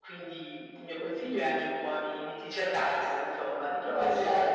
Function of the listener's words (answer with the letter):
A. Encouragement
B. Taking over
A